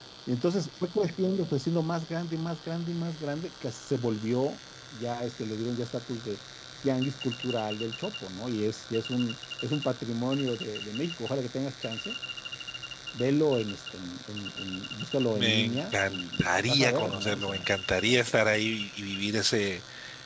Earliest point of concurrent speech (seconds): 15.3 s

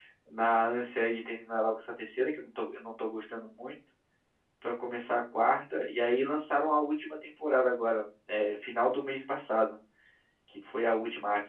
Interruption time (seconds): none

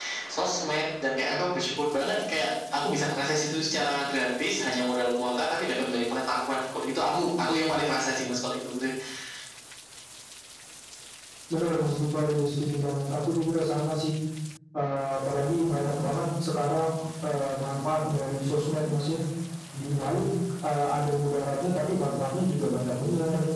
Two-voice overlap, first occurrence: none

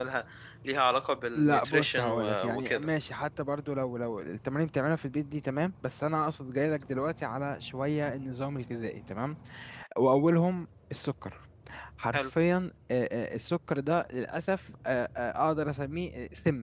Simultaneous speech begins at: 1.4 s

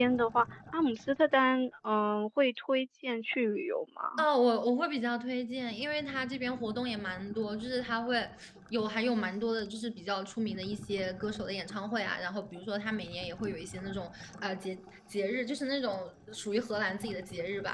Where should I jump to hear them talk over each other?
none

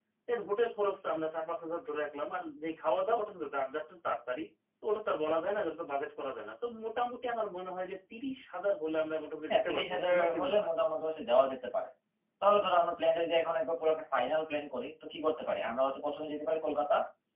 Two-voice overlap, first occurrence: 9.5 s

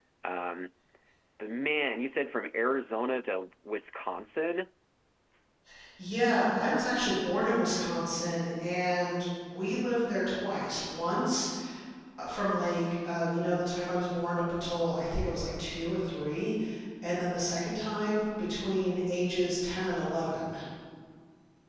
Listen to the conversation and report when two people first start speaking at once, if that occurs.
none

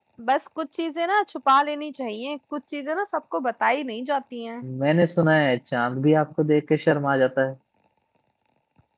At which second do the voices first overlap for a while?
none

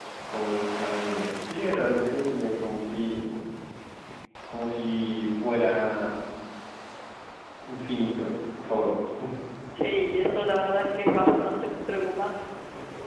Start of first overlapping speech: none

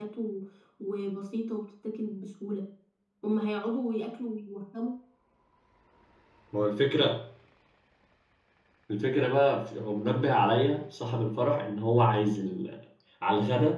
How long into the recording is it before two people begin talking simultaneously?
none

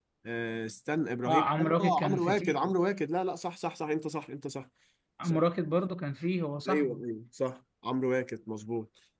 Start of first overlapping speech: 1.2 s

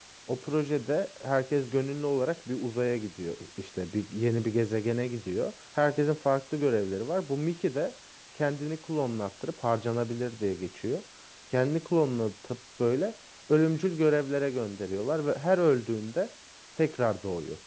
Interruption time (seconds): none

